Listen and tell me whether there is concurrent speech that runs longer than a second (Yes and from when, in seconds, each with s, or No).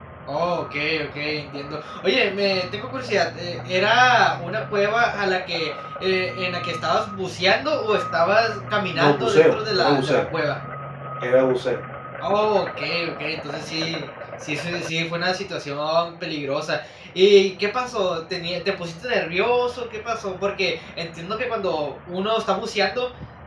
Yes, from 8.9 s